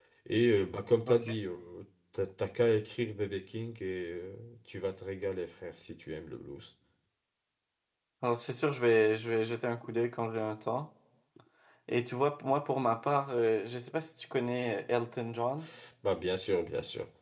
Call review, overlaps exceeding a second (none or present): none